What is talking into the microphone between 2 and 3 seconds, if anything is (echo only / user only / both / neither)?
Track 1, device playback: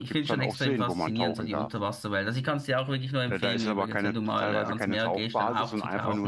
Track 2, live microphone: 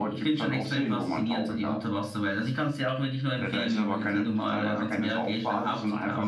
echo only